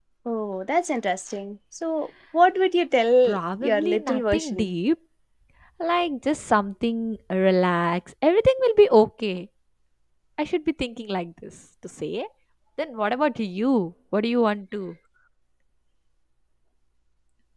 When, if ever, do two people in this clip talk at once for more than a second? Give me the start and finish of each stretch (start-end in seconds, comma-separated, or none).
3.2-4.7